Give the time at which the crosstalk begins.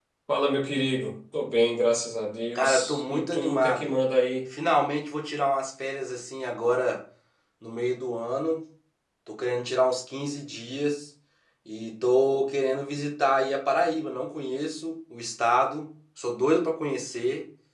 2.5 s

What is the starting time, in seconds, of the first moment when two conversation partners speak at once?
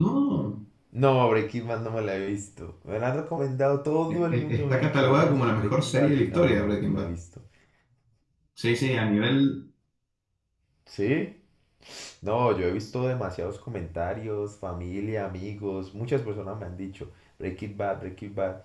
4.1 s

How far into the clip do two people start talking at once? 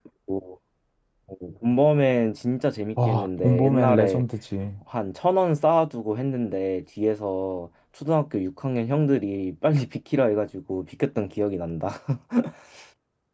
3.0 s

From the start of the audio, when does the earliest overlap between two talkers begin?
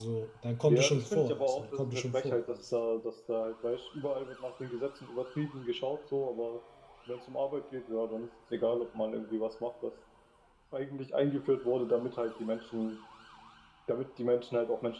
0.7 s

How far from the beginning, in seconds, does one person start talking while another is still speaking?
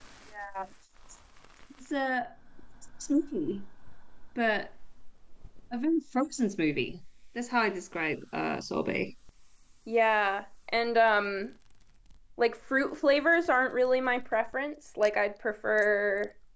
none

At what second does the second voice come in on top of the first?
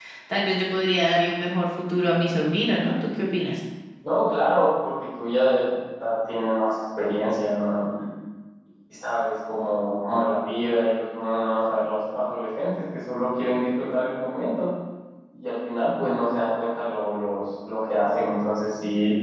none

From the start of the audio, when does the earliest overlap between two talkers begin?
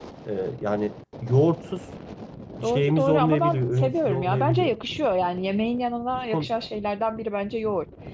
2.6 s

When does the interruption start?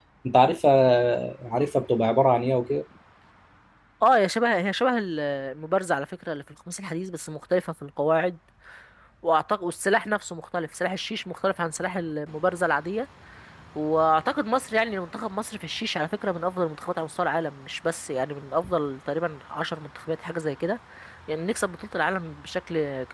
none

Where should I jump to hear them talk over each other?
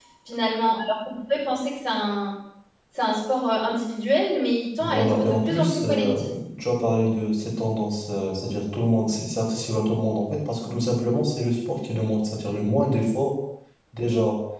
4.8 s

